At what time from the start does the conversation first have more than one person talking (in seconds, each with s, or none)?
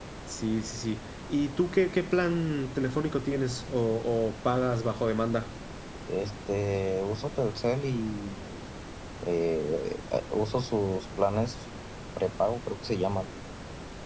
none